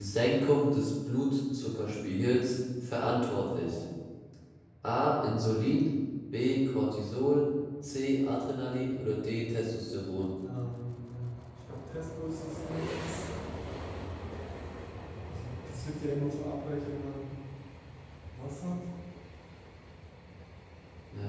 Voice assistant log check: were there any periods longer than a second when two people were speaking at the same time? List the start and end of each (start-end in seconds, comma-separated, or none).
none